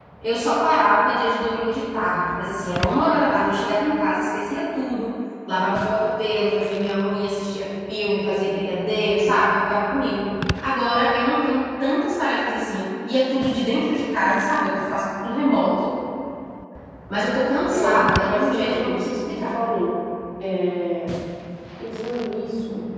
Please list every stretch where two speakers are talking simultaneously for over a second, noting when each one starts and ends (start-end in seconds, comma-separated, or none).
17.7-19.6